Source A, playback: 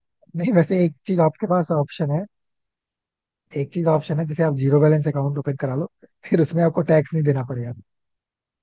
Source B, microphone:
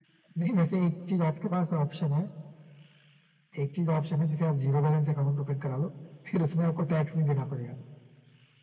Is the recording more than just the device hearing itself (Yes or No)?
No